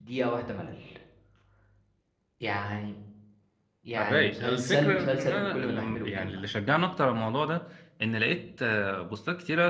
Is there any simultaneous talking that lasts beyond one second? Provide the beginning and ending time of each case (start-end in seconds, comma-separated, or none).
4.0-6.4